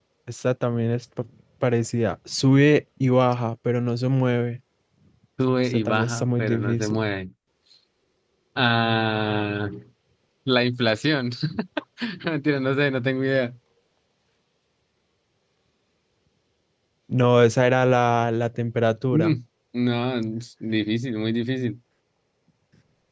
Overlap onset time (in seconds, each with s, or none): 5.7 s